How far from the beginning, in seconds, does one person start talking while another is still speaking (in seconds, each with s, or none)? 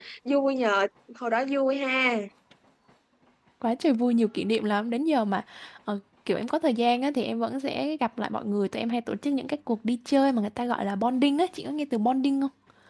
none